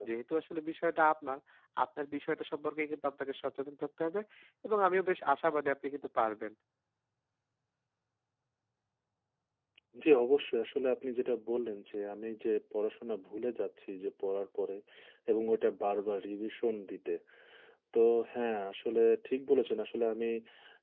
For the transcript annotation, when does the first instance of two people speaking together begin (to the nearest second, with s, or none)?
none